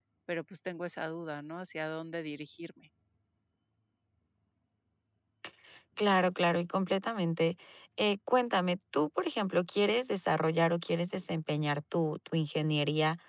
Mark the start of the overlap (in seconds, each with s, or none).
none